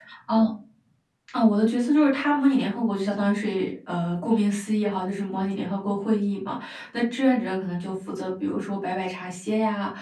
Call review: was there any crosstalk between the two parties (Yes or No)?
No